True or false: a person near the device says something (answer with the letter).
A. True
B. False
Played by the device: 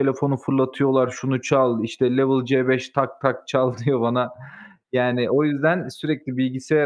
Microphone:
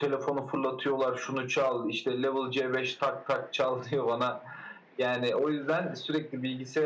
B